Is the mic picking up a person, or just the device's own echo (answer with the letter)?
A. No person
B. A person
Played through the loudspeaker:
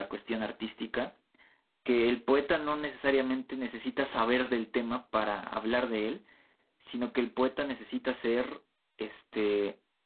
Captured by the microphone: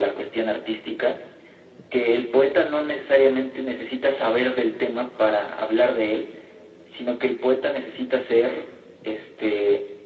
A